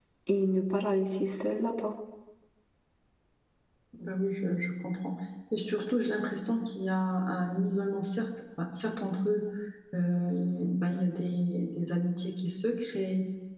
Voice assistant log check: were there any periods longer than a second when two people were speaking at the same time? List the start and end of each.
none

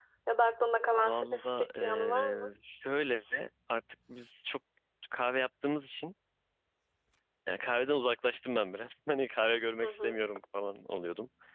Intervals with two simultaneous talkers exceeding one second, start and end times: 1.0-2.5

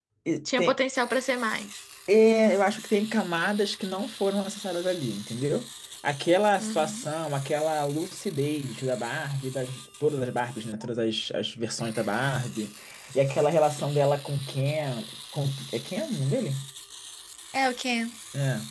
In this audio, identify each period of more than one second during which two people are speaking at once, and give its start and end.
none

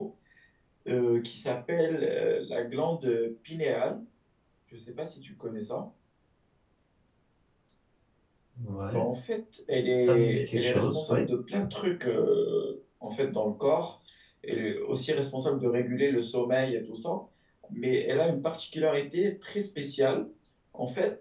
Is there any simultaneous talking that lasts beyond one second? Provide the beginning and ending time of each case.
10.0-11.2

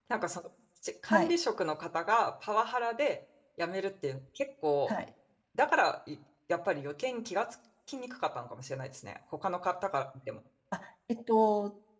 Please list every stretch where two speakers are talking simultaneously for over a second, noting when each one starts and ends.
none

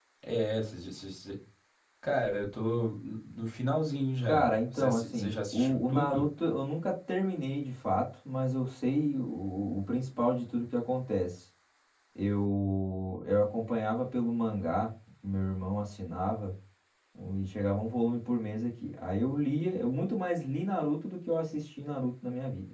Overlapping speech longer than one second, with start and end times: 4.2-6.2

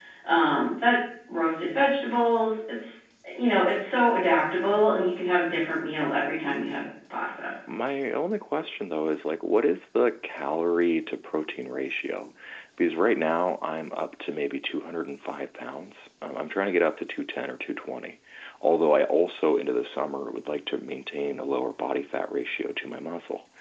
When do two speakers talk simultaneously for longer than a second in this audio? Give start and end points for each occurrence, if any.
none

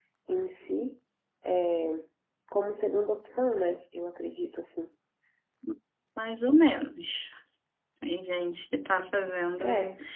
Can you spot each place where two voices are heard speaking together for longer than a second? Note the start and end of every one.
none

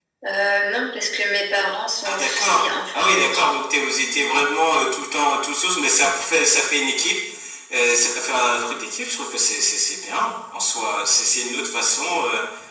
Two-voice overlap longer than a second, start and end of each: 2.0-3.5

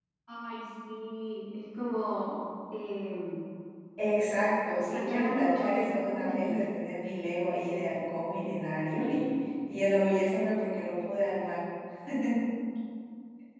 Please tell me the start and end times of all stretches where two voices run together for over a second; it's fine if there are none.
4.9-6.6

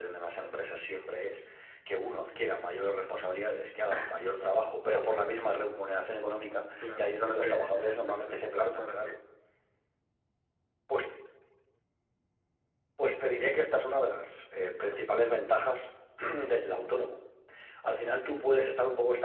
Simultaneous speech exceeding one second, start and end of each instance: 6.8-9.1

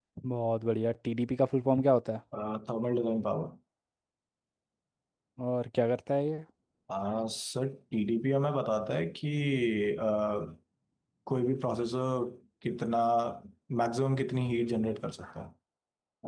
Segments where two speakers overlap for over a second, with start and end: none

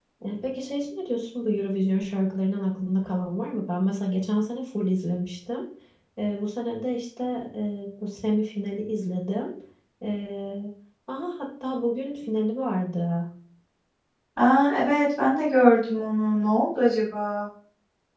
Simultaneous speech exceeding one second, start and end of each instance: none

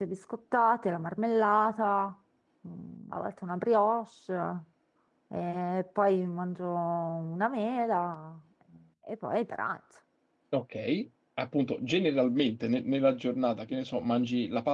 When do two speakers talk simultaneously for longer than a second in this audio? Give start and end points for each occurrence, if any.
none

